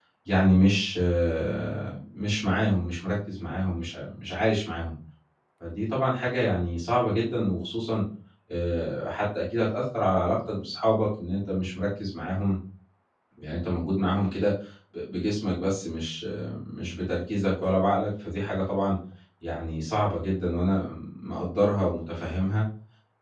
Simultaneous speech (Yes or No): No